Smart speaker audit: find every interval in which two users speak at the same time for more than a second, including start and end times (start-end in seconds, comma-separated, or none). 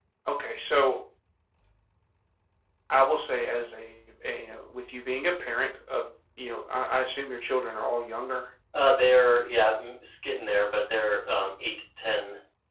none